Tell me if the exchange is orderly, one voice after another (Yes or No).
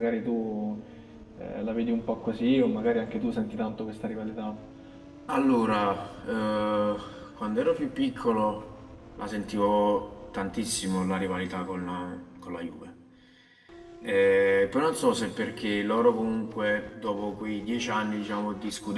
Yes